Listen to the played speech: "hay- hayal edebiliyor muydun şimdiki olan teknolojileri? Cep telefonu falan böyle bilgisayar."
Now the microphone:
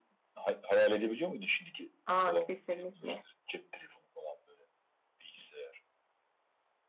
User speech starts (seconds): 2 s

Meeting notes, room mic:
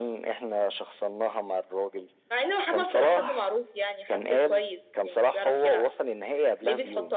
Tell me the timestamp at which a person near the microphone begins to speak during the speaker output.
none

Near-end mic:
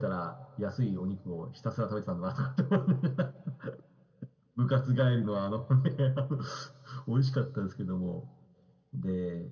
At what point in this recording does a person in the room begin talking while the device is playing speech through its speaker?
none

